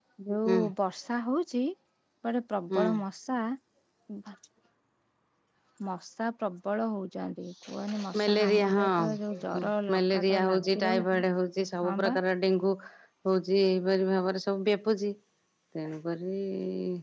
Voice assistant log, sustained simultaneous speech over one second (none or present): present